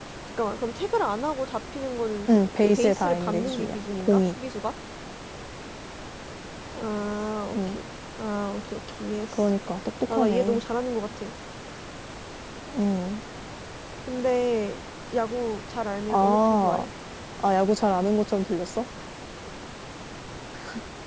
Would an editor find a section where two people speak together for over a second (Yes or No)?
Yes